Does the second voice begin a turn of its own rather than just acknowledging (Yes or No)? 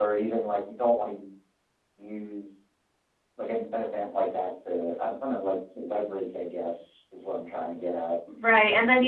Yes